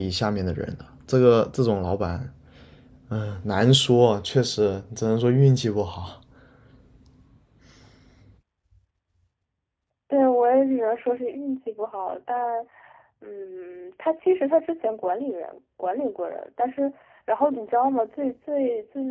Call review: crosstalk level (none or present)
none